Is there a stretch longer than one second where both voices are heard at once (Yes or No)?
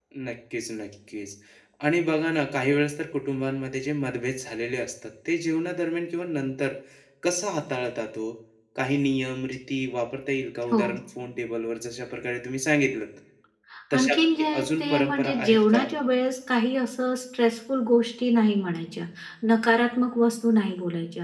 Yes